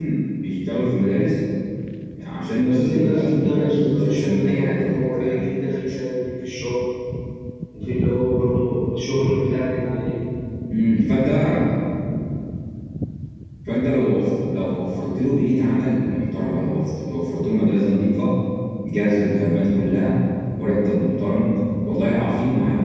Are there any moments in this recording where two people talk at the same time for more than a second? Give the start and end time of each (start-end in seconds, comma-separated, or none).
2.6-5.4